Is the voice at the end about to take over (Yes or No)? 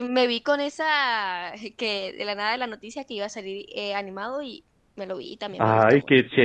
Yes